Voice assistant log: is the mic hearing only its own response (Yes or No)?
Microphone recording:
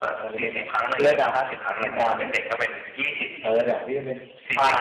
No